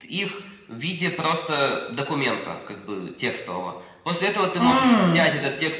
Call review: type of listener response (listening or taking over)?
listening